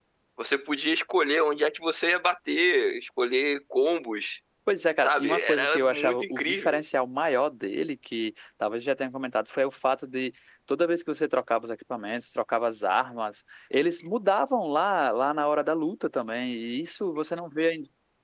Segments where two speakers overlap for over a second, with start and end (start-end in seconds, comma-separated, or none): 5.0-6.8